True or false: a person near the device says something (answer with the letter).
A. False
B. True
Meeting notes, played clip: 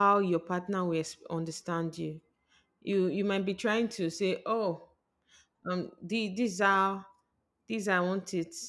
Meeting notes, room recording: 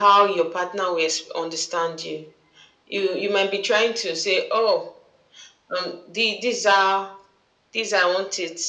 A